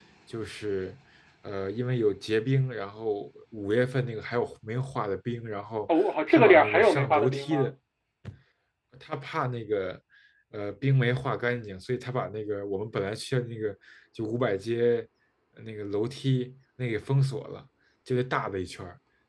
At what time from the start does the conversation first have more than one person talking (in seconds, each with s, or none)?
5.9 s